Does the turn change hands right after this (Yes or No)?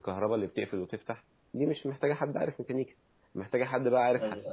No